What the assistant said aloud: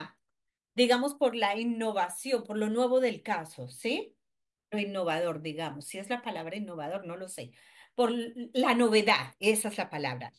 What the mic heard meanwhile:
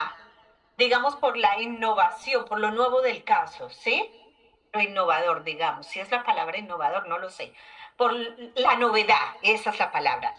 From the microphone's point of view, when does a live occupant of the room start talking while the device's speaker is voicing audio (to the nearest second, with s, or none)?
none